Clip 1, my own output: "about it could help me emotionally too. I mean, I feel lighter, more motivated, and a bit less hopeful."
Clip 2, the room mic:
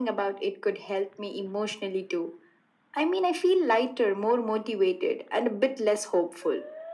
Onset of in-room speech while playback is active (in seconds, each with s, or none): none